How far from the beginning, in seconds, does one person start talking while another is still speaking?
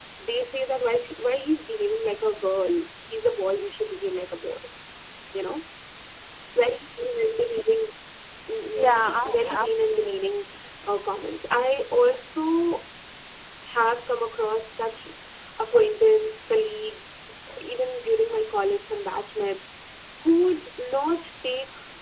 8.8 s

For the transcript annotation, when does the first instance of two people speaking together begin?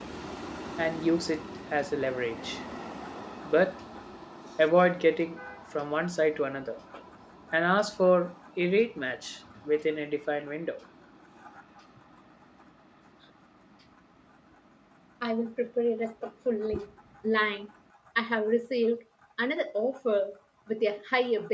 none

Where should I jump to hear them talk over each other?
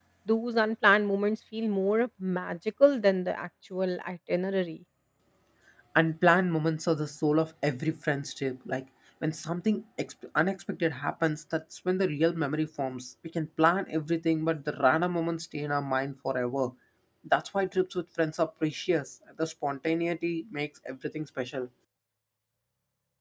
none

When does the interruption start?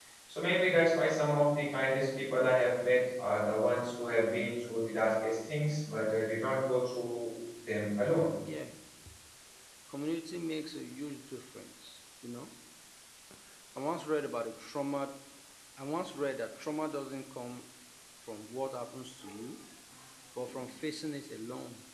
none

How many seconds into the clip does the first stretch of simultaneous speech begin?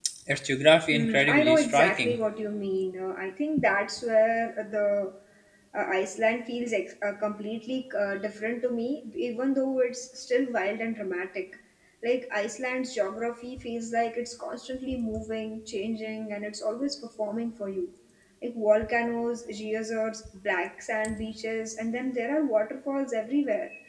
0.9 s

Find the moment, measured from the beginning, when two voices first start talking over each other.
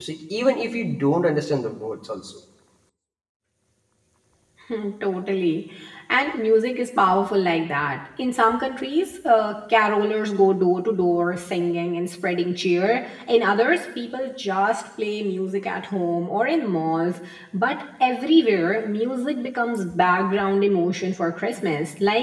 none

